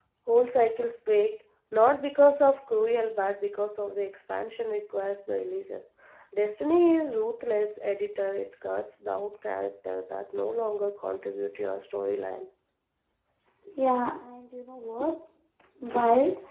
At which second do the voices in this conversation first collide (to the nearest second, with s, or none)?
none